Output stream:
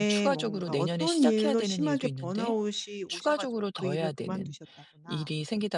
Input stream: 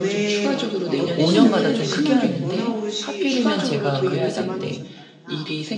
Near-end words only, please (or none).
좀 5 년마다 좀 크게 하는데 하필이면 제가 그 회장 때